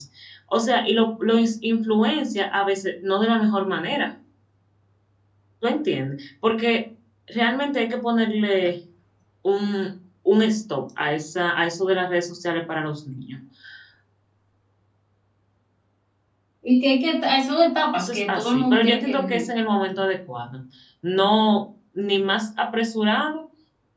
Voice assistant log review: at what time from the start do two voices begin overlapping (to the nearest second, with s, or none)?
18 s